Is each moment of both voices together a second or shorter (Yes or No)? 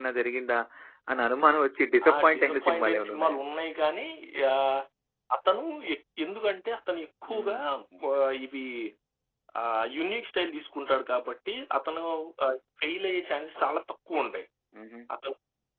No